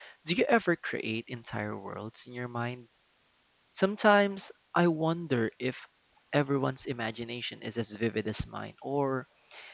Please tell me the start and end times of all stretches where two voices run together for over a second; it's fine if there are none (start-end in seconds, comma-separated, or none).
none